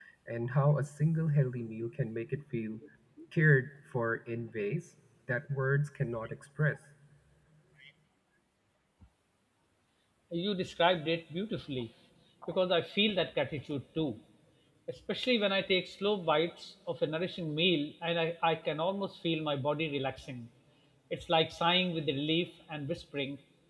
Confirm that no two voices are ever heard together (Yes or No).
Yes